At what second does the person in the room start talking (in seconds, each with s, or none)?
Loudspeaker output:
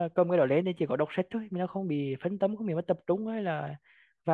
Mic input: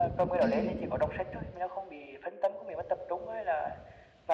0.4 s